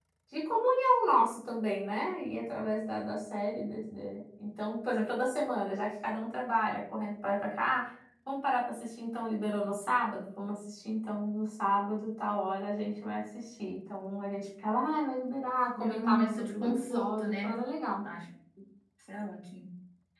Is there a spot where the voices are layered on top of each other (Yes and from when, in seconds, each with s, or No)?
Yes, from 15.7 s